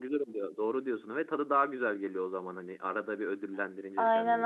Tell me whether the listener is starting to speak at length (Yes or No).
Yes